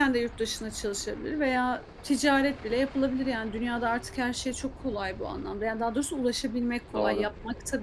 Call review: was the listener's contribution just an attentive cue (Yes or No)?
Yes